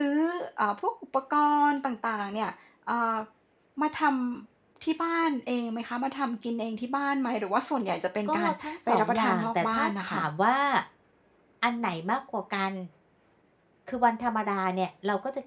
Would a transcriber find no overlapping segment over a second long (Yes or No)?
No